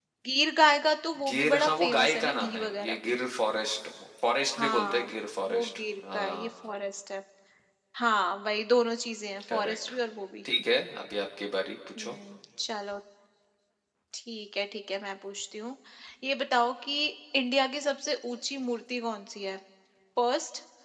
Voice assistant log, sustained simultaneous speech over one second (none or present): present